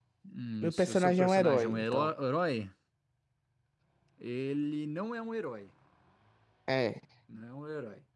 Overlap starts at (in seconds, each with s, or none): 0.6 s